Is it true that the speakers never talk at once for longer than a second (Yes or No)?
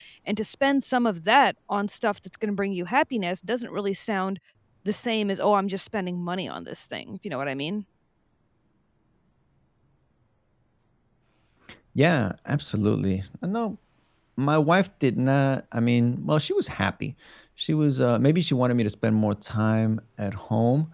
Yes